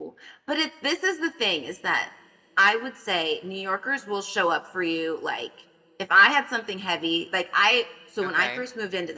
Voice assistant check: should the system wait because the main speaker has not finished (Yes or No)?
Yes